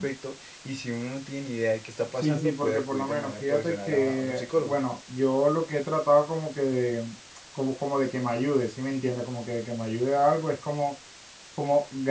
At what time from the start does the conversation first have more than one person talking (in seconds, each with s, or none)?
2.2 s